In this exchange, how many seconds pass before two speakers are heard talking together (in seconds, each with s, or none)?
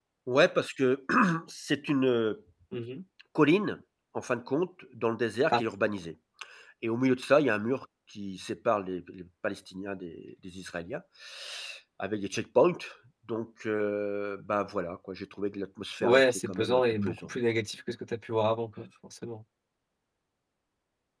16.0 s